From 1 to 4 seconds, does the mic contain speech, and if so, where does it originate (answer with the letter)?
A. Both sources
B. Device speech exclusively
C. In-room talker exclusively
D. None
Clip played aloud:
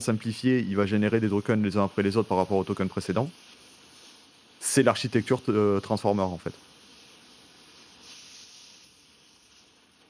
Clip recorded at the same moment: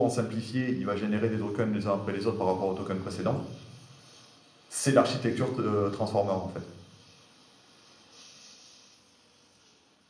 B